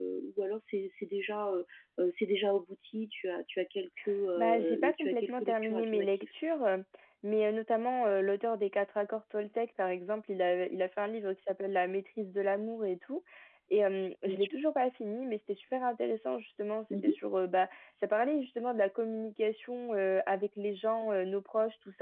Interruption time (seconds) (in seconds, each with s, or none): 4.4 s